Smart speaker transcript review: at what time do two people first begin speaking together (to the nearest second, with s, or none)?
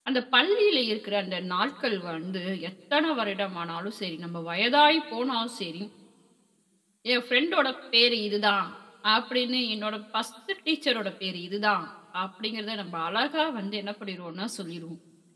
none